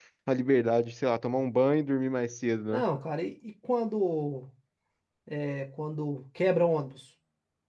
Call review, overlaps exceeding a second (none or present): none